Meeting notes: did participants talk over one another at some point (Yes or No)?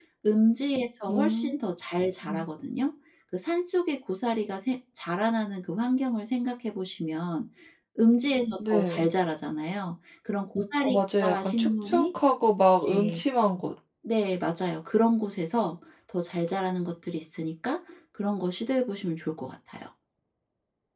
Yes